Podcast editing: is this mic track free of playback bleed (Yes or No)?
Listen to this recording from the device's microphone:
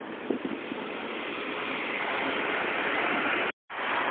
Yes